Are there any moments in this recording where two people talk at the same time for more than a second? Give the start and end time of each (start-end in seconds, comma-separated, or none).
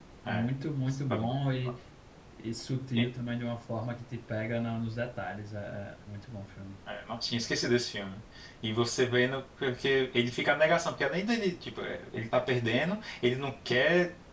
none